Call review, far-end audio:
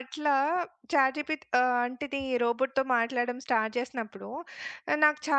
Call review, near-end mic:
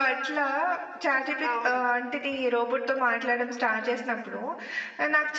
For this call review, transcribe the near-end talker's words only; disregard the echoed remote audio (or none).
అవును.